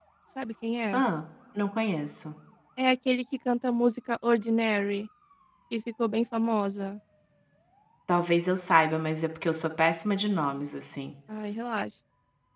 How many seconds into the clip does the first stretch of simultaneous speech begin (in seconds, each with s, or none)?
none